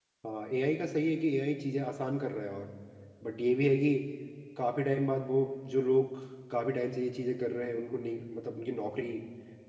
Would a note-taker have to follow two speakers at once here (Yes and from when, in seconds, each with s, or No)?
No